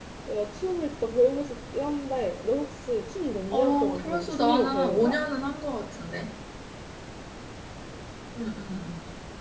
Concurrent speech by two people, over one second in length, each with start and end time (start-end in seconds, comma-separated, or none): 3.5-5.2